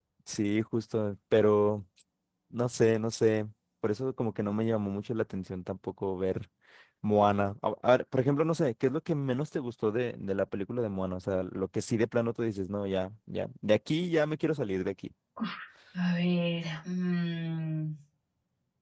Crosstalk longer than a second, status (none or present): none